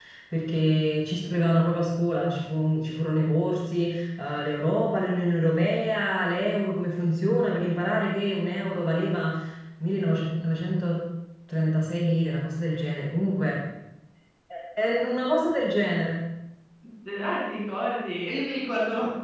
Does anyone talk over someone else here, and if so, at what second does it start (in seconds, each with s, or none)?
none